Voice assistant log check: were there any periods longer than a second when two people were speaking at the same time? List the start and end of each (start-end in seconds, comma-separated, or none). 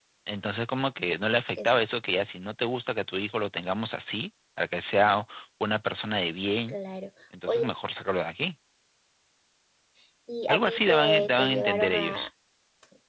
10.5-12.3